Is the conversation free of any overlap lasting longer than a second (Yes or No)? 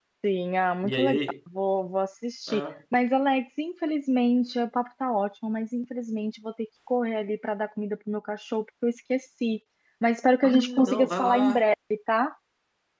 No